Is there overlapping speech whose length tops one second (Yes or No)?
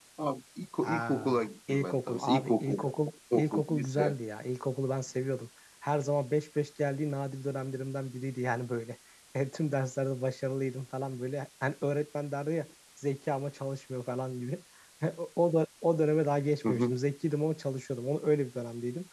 Yes